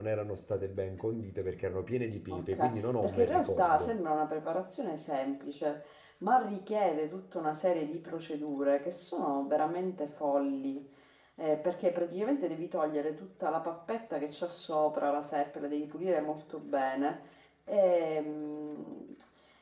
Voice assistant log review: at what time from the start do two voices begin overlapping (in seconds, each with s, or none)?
2.3 s